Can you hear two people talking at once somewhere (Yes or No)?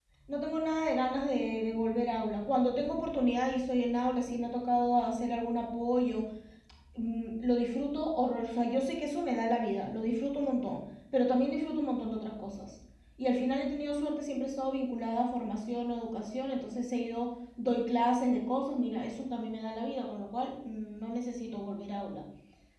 No